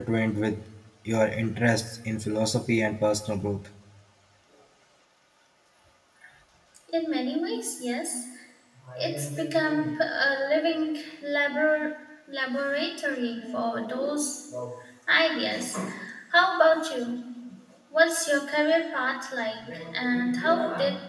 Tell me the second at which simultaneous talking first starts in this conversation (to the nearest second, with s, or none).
none